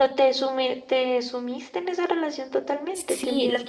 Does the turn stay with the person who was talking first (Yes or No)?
No